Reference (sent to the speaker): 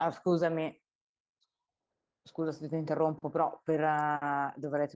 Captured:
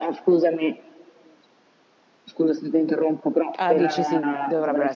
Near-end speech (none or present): present